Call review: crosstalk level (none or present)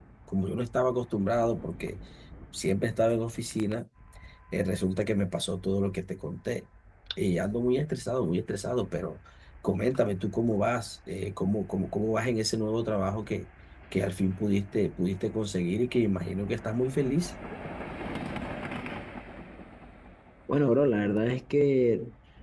none